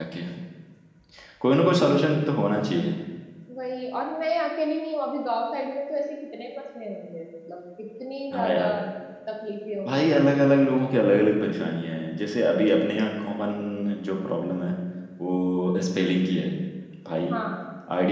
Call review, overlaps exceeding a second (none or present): none